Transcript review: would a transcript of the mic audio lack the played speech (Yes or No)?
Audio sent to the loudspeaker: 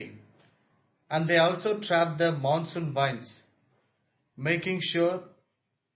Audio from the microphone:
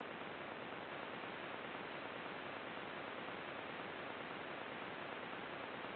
Yes